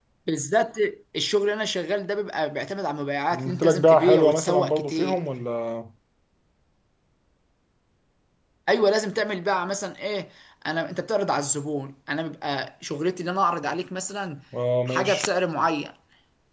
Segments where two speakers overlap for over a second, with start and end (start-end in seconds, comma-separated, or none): 3.3-5.2